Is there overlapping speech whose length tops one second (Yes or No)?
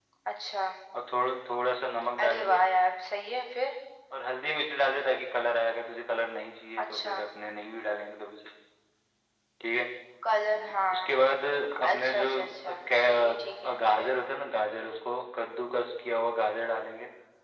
Yes